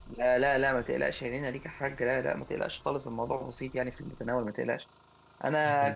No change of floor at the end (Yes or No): Yes